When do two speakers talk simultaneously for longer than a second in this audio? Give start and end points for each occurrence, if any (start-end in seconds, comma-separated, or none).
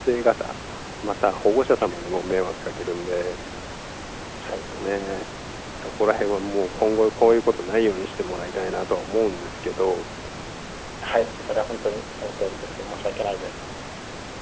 none